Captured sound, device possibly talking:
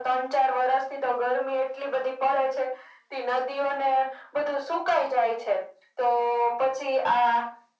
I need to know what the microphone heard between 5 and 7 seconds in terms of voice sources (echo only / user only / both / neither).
echo only